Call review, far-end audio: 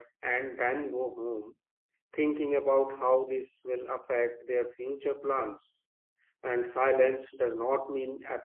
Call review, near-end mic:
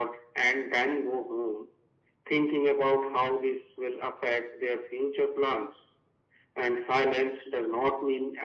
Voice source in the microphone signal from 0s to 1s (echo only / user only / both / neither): echo only